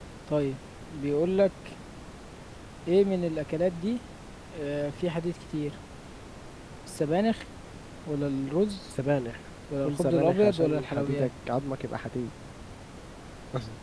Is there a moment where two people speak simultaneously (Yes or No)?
Yes